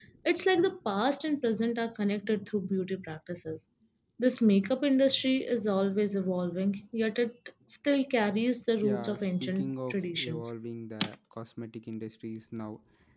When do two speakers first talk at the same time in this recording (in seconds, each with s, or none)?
8.8 s